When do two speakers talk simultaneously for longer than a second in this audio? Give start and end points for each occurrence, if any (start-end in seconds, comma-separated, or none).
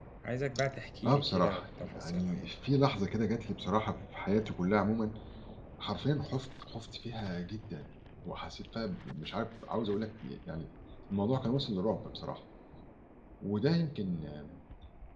1.1-2.5